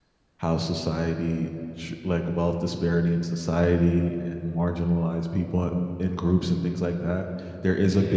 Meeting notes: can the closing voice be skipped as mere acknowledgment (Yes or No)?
Yes